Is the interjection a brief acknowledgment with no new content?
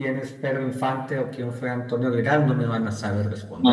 No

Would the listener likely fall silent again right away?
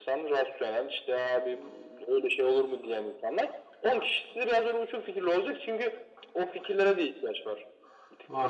No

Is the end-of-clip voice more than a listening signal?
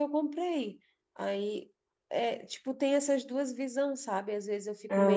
No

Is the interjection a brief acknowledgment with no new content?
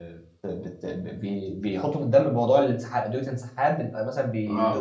Yes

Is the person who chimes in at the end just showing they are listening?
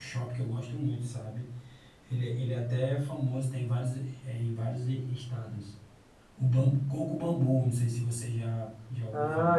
No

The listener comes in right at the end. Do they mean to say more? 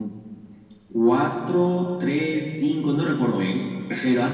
No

